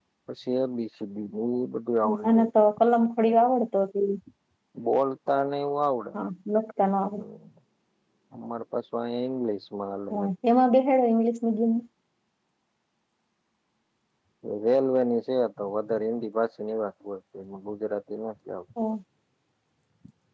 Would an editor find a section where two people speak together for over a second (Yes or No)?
No